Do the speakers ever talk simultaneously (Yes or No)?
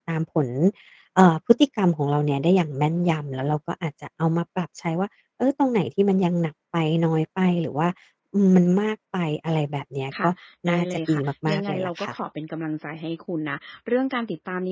Yes